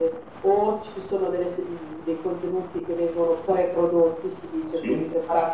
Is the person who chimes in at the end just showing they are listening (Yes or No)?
Yes